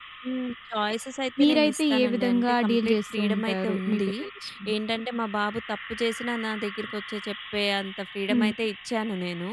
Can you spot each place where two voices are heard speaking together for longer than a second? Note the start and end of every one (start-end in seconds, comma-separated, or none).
1.4-4.1